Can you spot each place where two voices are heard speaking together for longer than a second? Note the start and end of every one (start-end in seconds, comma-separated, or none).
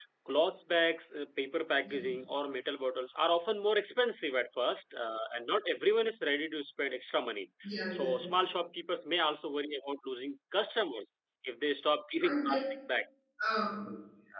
none